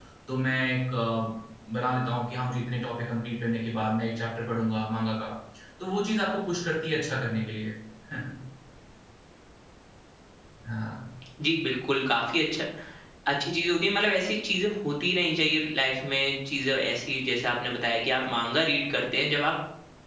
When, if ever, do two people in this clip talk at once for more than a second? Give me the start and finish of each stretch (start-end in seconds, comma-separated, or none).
none